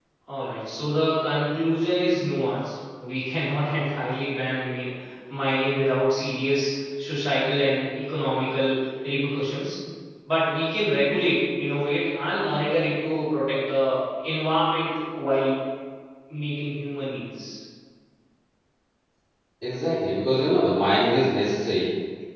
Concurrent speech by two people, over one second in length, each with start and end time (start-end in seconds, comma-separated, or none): none